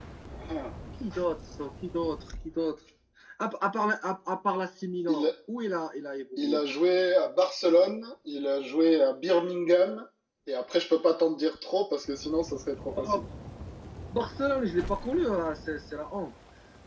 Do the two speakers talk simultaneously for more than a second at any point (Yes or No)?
No